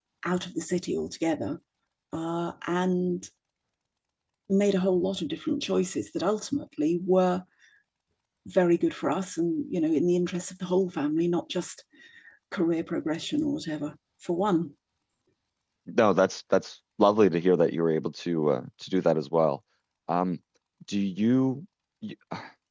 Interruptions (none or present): none